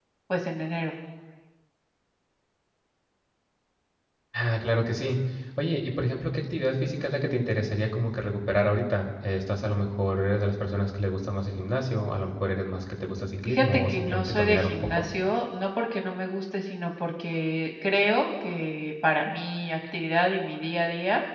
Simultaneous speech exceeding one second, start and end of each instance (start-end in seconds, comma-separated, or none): 13.5-15.0